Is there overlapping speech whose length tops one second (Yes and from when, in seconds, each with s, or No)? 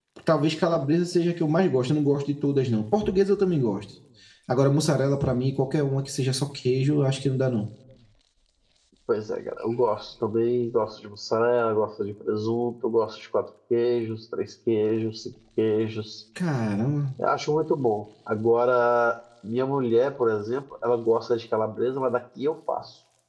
No